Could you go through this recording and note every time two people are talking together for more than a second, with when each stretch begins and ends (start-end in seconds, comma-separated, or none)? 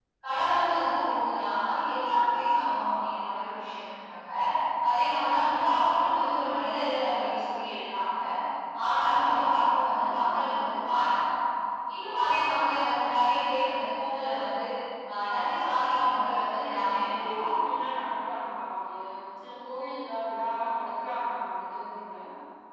none